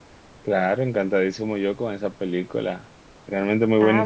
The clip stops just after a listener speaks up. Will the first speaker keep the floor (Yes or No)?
No